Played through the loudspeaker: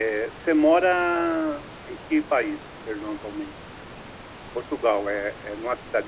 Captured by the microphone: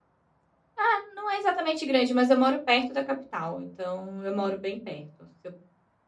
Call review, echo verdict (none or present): none